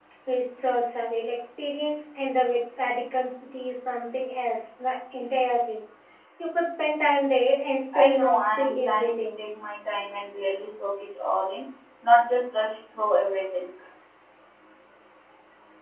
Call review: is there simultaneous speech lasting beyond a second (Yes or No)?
Yes